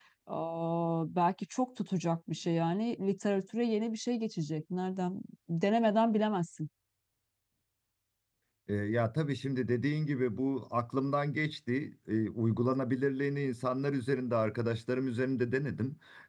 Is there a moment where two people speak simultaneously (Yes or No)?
No